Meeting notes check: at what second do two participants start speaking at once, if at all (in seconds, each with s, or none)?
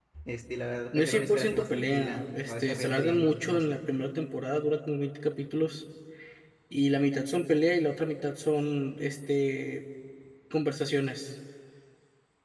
0.9 s